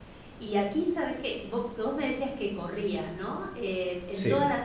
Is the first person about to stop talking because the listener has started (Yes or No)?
No